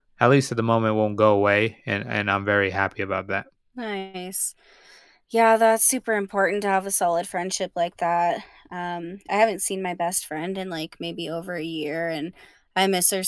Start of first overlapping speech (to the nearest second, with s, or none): none